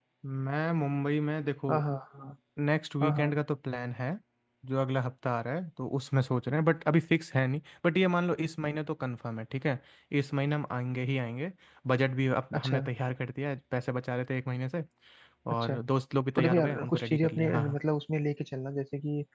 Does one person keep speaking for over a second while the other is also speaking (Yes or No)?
Yes